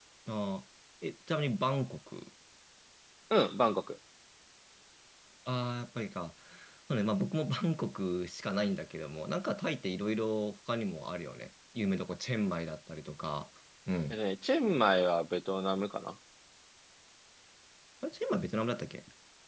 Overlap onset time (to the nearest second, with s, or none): none